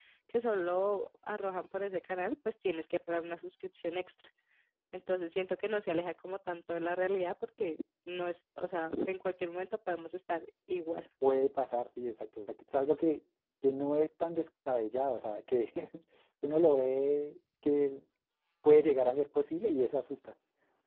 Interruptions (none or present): none